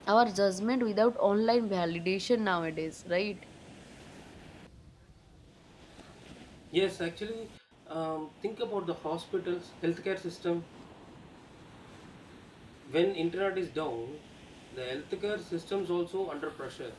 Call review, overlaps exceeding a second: none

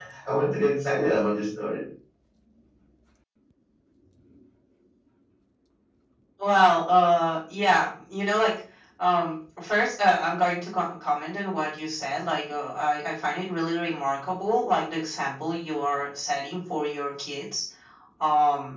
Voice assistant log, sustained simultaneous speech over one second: none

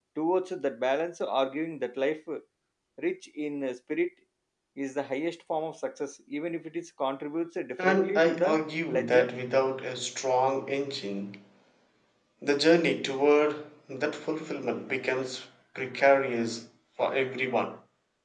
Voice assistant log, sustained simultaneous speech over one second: present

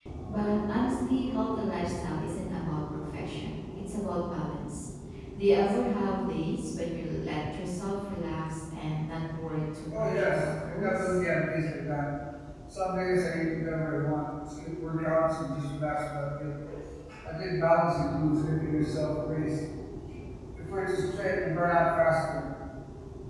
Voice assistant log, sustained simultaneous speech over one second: present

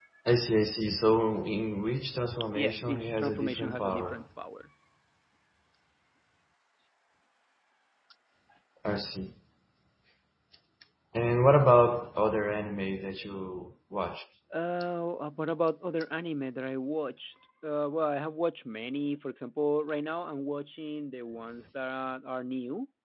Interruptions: present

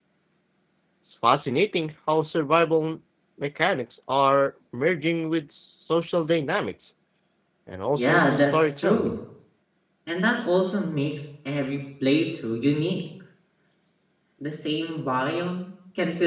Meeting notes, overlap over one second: present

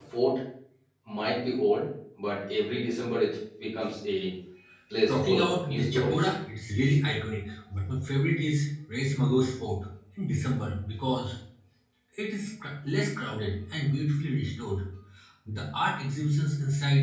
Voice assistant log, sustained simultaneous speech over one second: present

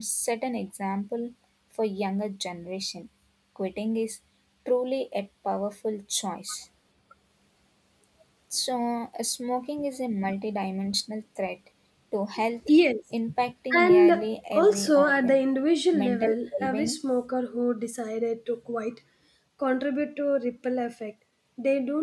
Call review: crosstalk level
present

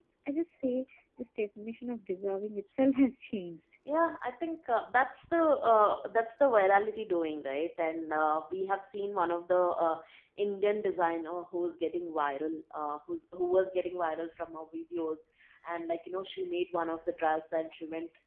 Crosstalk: none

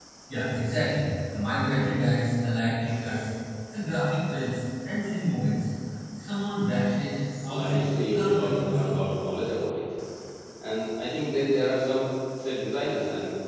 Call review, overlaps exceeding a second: present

